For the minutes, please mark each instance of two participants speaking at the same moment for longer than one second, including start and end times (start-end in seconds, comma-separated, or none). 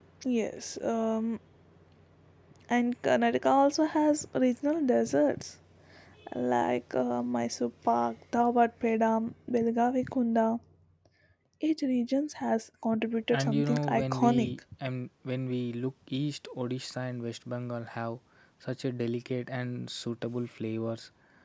13.3-14.6